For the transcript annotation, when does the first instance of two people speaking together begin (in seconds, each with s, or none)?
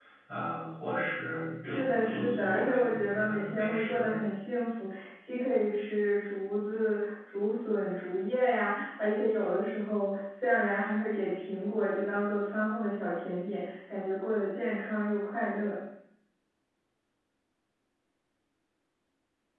1.6 s